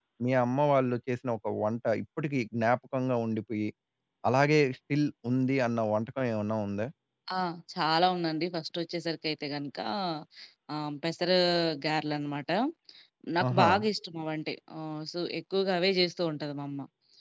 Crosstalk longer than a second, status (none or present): none